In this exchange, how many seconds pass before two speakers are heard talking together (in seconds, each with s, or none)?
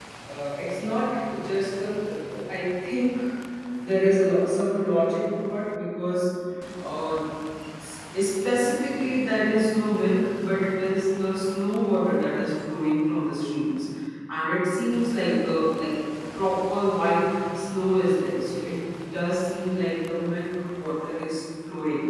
none